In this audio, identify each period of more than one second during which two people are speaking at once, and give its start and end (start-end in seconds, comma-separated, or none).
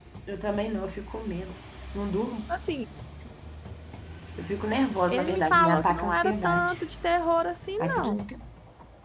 5.1-6.7